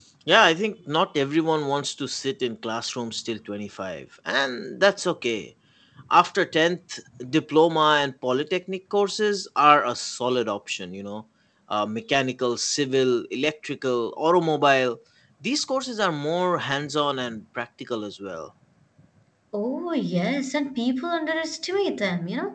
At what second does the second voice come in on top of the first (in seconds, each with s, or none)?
none